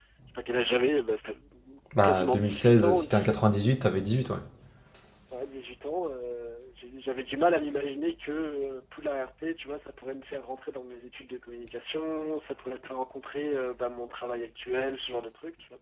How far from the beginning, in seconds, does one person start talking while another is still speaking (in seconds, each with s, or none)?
2.0 s